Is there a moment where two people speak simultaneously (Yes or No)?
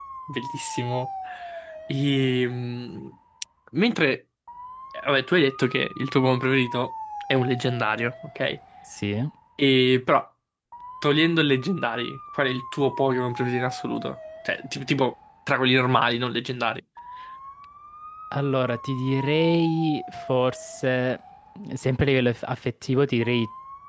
No